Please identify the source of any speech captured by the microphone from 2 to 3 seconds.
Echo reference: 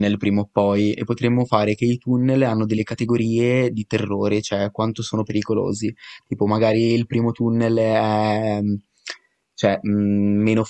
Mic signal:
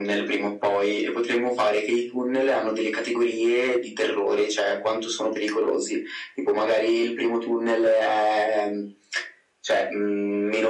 echo only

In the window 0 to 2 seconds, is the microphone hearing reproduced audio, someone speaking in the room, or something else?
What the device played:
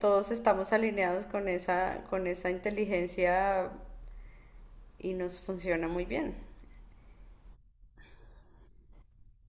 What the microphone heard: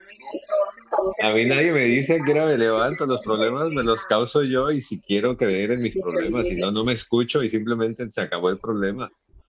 both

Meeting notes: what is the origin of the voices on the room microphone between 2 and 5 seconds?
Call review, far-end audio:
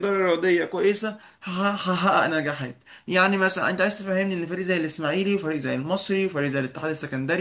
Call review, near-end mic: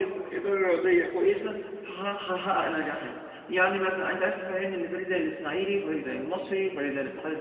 echo only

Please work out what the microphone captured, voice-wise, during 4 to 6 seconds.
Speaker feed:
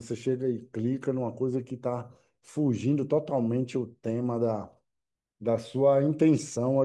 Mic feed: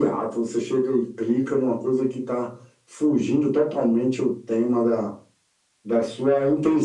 echo only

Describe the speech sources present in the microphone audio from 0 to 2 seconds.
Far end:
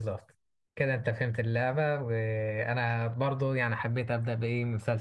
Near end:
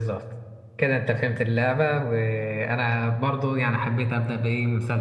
echo only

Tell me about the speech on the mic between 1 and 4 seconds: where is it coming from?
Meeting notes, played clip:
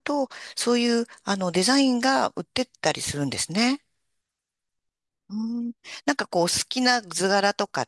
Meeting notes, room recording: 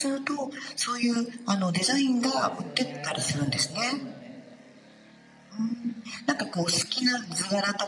both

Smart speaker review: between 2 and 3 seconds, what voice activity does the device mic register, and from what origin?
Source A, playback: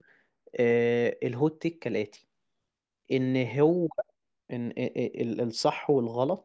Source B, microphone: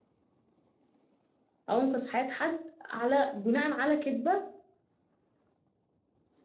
user only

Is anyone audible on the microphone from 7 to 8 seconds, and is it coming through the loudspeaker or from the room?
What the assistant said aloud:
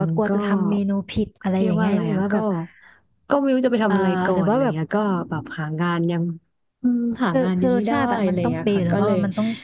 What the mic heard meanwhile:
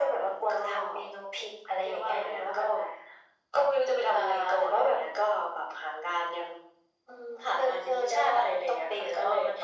echo only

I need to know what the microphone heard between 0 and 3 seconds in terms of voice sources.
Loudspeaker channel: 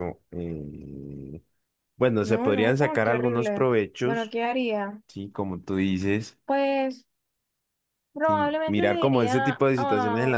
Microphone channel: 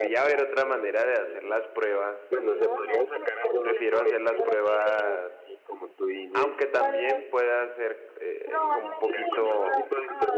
both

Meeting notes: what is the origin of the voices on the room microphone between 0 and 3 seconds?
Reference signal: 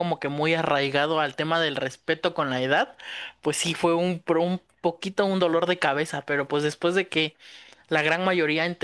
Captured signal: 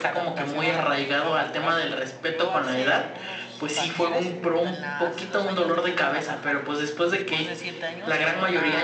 both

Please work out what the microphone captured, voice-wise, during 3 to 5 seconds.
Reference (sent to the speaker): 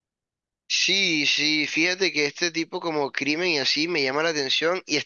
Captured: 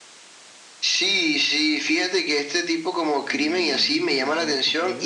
both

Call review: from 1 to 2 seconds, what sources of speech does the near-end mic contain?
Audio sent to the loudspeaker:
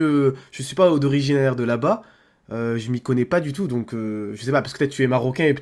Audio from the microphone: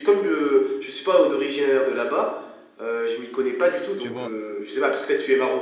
echo only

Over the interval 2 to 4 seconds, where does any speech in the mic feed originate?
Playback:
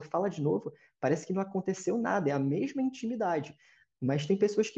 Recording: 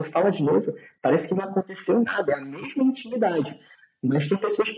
echo only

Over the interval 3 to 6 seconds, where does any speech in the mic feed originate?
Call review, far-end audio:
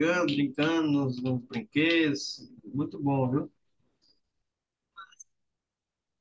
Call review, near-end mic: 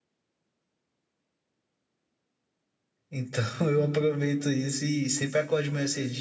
user only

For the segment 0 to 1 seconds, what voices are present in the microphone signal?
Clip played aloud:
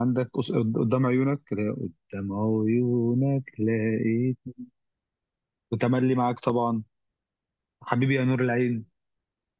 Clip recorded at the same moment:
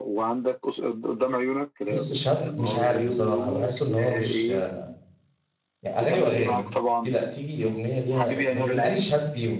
echo only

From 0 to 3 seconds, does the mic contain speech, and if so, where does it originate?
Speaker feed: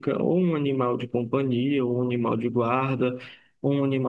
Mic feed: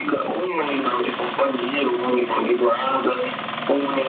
echo only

